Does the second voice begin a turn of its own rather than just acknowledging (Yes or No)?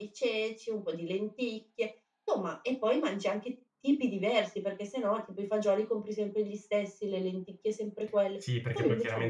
Yes